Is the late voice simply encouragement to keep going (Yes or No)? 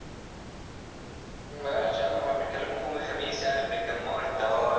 No